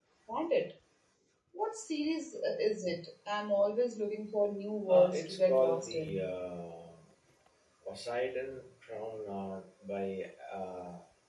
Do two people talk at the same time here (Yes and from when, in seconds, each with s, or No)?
Yes, from 4.9 s